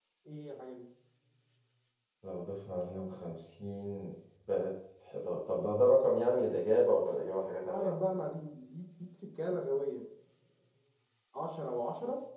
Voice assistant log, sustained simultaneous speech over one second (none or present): none